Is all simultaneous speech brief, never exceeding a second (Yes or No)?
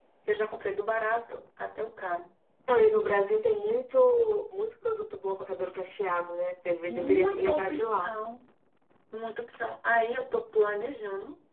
No